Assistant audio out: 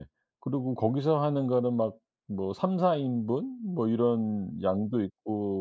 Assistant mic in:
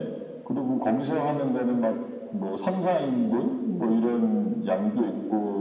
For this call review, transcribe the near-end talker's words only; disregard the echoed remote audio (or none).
none